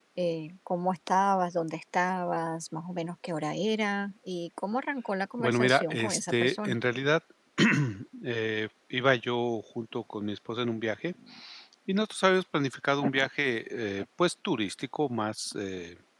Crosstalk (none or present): present